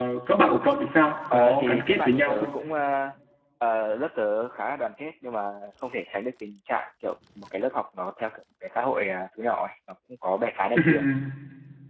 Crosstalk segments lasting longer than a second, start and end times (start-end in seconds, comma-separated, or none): 1.3-2.6